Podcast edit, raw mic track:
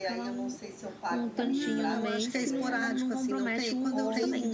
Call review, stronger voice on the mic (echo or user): echo